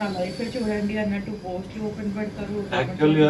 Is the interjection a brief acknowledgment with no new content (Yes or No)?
No